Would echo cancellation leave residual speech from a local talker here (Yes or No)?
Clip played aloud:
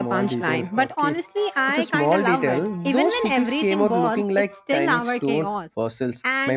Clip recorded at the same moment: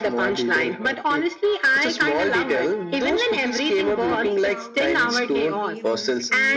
Yes